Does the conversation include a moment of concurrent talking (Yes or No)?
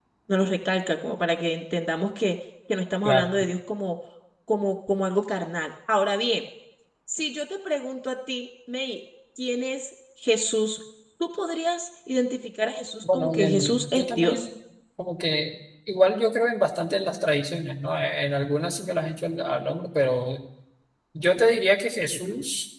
Yes